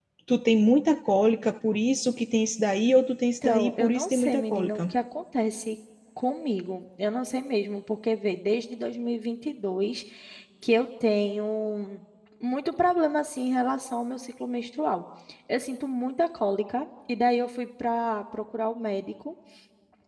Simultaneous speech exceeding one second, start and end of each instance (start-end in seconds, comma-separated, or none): 3.4-4.8